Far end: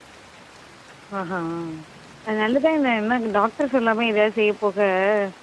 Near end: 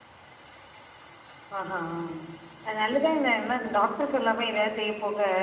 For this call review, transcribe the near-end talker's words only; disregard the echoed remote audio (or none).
none